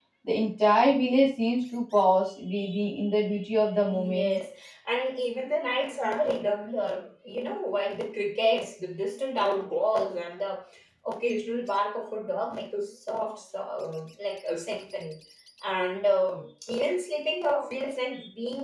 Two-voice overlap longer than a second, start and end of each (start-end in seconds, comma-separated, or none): none